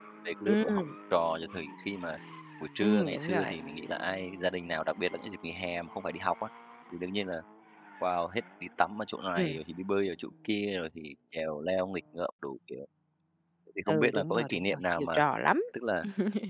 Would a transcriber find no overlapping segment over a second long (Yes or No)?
No